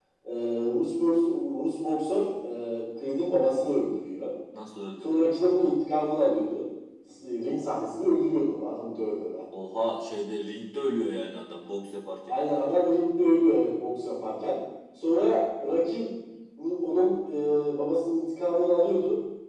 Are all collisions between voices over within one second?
Yes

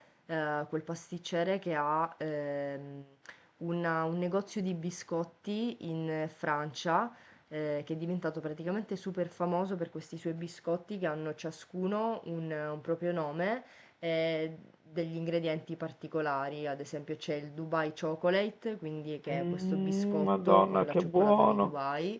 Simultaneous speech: Yes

